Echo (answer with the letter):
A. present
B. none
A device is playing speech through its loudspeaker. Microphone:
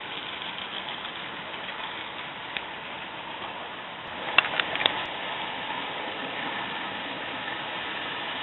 B